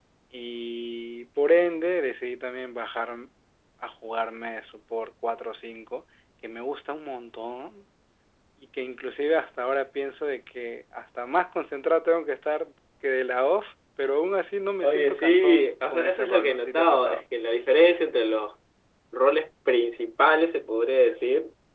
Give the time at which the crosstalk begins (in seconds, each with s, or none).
14.8 s